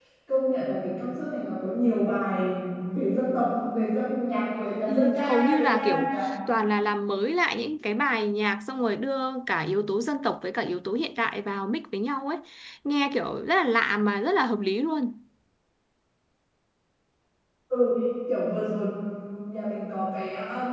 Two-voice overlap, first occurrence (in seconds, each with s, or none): 4.9 s